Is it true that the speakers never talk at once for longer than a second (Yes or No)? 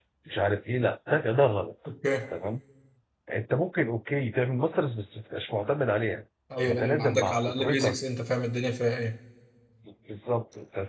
No